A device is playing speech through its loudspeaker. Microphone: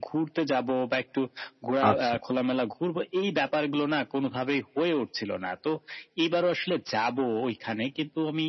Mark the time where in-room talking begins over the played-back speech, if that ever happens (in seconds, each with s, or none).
1.9 s